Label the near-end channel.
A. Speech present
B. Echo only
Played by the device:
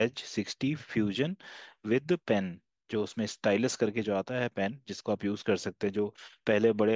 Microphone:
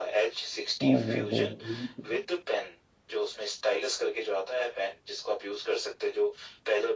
A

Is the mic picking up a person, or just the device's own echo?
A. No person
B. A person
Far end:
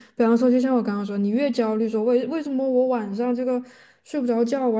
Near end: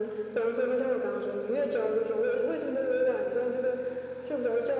A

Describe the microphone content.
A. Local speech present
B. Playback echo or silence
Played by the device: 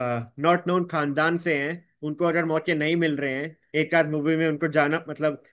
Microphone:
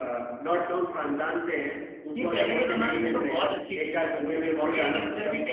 A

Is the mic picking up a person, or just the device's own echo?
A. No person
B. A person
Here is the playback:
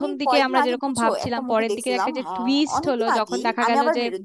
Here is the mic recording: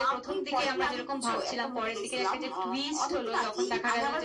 A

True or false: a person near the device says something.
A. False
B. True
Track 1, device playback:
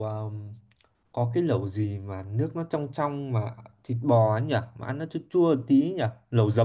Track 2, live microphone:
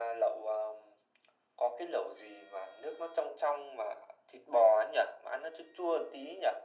A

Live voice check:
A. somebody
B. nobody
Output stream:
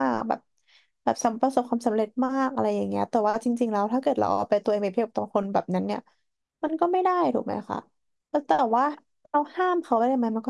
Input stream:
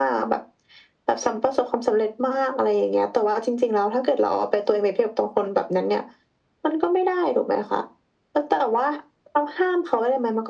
B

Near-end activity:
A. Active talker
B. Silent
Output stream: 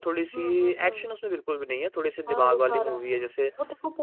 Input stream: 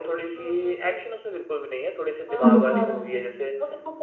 A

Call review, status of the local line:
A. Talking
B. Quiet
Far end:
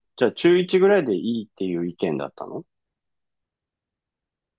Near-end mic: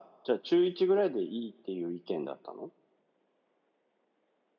B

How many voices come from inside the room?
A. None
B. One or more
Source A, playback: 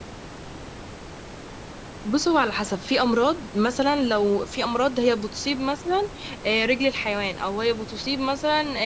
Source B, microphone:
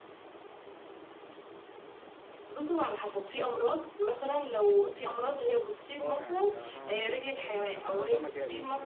B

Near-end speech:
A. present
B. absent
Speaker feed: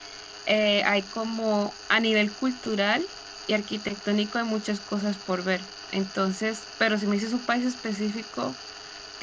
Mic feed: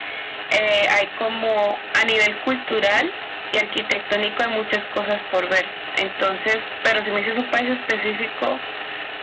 B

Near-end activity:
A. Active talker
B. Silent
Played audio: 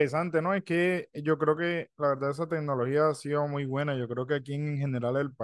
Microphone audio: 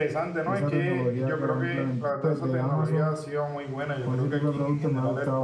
A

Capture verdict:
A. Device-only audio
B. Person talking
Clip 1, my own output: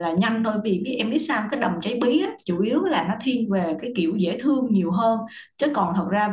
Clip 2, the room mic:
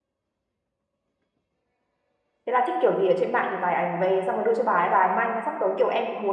B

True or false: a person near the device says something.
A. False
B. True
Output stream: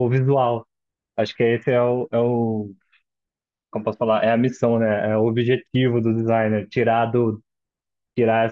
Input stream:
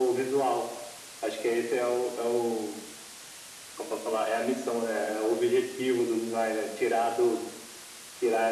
A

